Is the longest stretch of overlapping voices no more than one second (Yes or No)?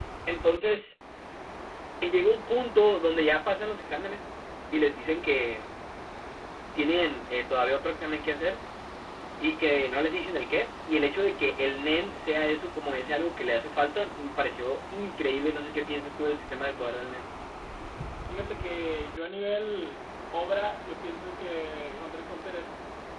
Yes